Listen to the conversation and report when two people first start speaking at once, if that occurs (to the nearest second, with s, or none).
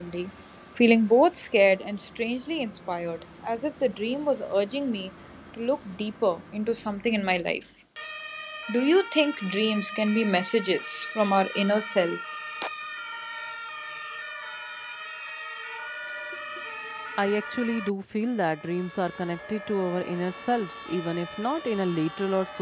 none